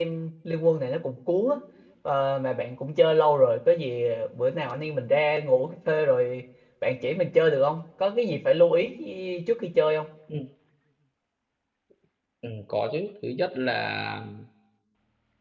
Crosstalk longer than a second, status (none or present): none